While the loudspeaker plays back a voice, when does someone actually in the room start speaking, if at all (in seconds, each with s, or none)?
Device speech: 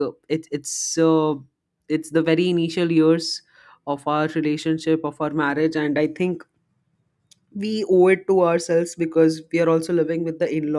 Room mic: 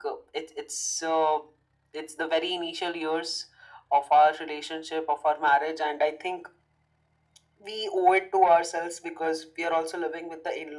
none